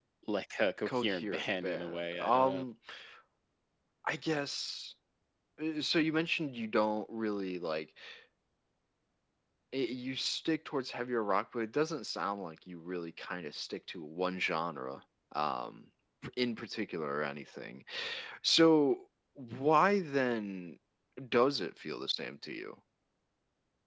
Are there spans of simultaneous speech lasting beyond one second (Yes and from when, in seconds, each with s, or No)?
Yes, from 0.9 s